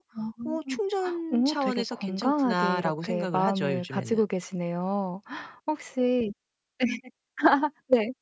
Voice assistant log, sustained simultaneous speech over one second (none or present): present